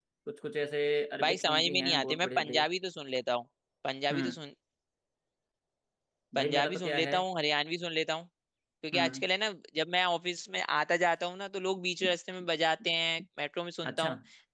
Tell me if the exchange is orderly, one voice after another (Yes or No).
No